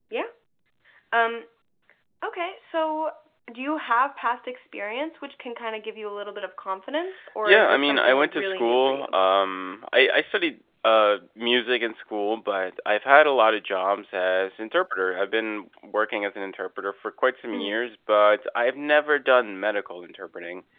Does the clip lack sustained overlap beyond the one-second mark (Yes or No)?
No